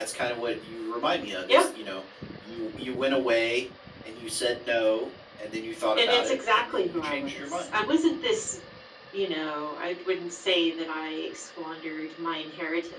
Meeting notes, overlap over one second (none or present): present